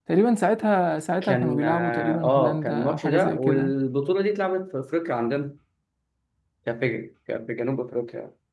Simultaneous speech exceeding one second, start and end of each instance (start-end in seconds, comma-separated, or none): 1.2-3.7